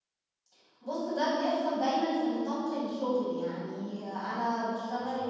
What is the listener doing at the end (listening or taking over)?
listening